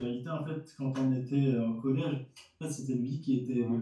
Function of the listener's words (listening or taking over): listening